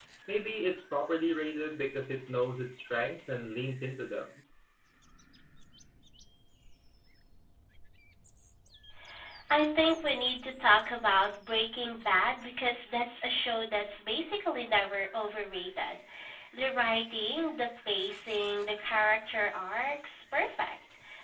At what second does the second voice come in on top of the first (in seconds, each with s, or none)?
none